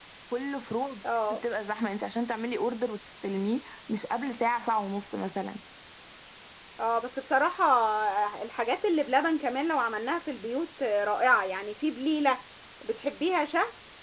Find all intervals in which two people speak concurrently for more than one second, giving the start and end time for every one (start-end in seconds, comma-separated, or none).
none